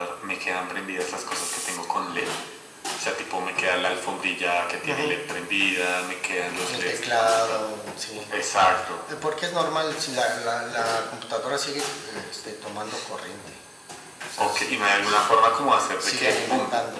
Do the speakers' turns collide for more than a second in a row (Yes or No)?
Yes